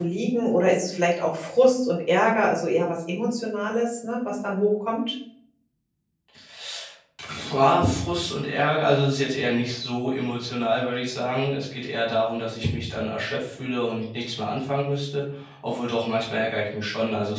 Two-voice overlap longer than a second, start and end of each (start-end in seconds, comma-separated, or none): none